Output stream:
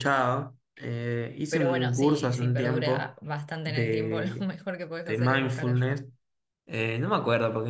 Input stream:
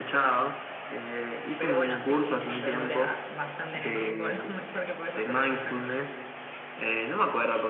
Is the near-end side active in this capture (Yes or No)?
No